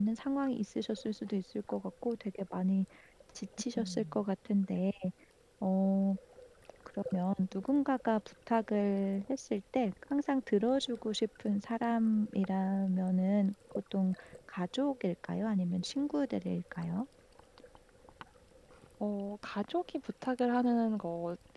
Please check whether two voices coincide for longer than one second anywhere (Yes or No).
No